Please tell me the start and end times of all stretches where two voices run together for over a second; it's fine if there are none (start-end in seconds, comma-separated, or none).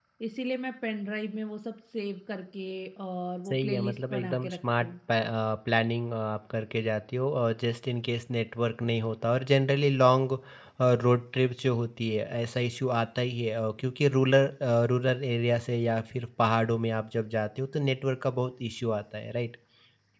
3.5-4.9